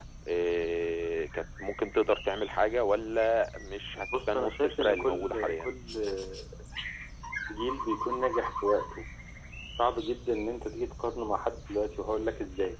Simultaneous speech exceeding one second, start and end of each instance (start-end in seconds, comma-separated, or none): 4.3-5.7